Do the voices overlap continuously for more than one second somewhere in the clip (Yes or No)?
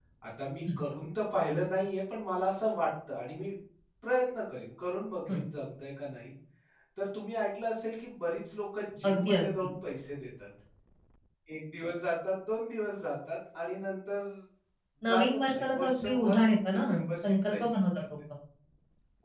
Yes